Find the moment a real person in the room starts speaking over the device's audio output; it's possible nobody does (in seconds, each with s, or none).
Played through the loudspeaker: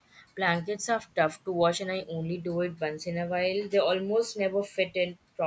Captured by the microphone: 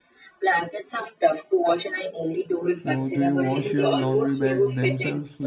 2.7 s